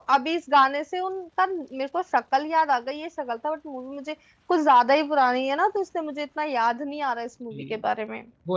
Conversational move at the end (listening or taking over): taking over